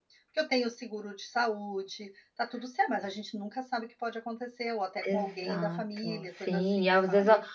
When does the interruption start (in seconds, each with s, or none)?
5.0 s